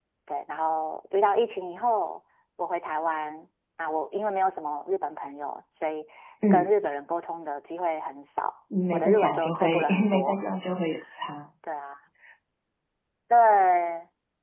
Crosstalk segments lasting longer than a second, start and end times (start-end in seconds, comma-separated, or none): 8.9-10.4